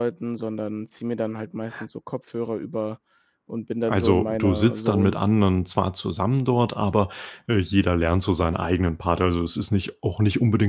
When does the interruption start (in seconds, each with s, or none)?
3.9 s